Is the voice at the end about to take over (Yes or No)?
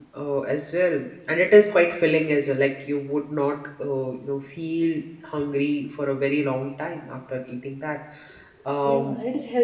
Yes